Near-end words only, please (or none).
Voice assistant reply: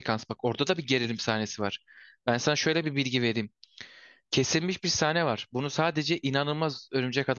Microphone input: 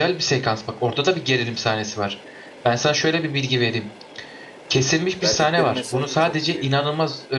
Verdikleri mesaj da çok iyi.